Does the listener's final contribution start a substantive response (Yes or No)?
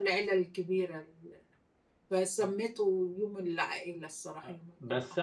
Yes